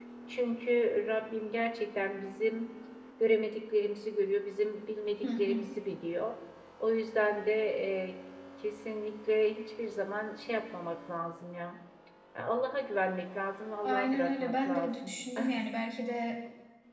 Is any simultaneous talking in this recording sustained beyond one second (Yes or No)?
Yes